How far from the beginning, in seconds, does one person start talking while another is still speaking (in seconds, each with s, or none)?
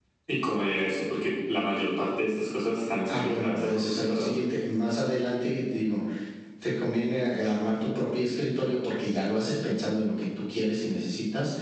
3.1 s